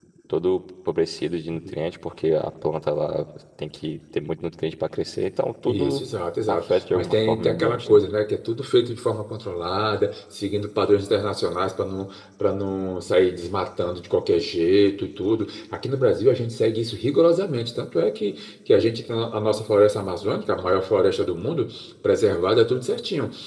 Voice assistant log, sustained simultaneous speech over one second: present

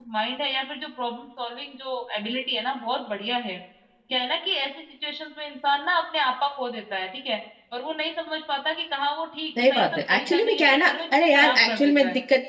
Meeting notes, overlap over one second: present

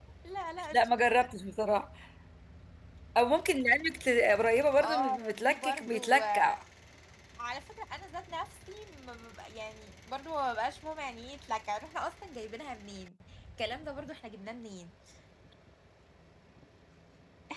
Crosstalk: present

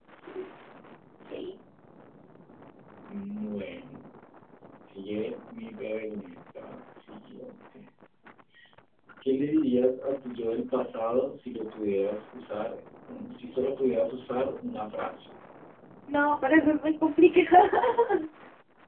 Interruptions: none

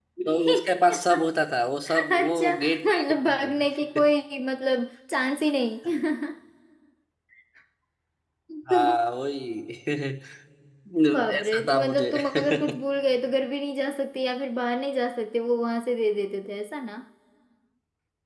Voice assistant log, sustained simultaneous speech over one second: present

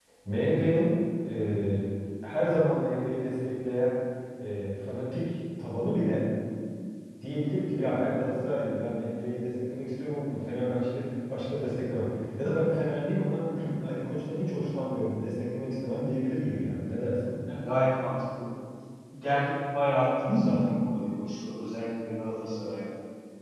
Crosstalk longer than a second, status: none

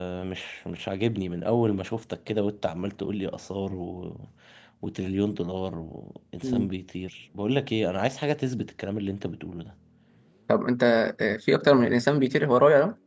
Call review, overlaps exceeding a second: none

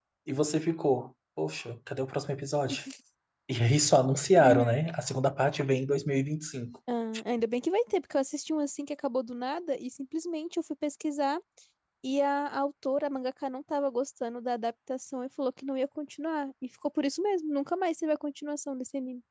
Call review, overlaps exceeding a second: none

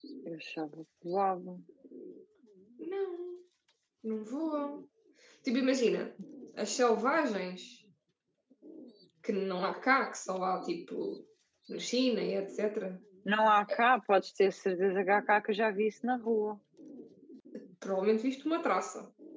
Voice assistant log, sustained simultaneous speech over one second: none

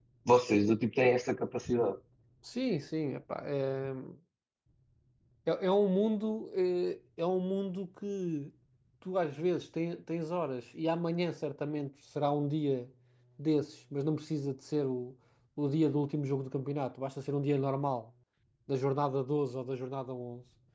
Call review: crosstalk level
none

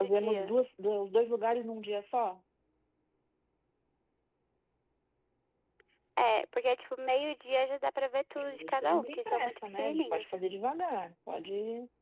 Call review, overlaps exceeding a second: present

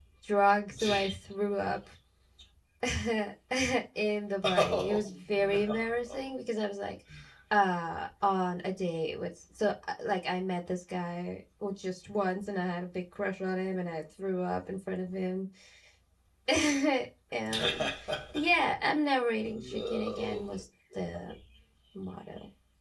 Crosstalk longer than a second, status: present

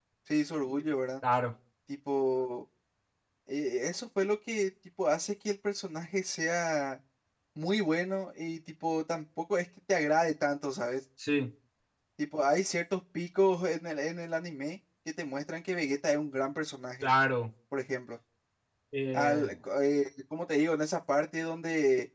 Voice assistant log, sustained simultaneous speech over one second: none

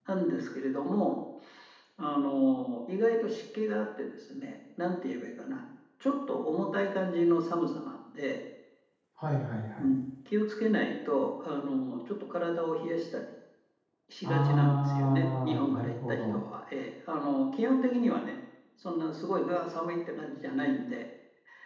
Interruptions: present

